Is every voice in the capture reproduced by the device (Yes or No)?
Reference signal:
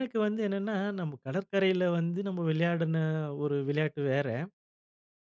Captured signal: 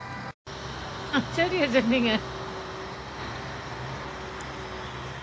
No